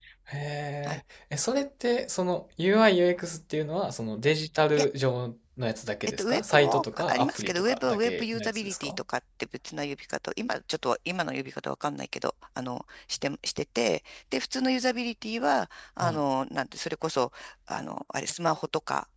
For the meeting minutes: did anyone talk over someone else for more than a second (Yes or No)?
Yes